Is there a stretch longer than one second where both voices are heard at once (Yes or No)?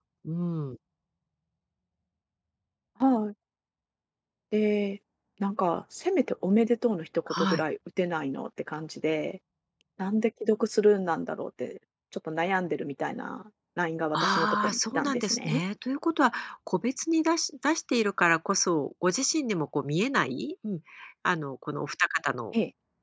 Yes